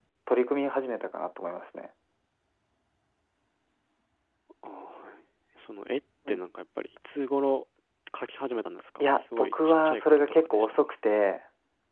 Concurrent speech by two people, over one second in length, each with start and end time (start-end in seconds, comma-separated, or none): 9.1-10.8